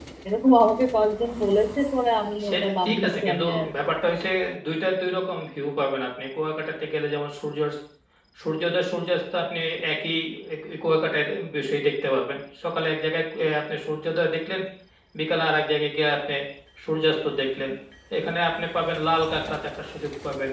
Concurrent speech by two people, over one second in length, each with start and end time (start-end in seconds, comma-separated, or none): 2.5-3.7